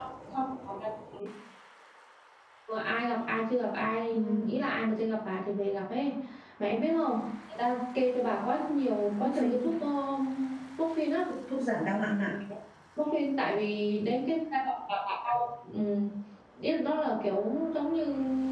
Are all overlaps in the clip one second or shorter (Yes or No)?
Yes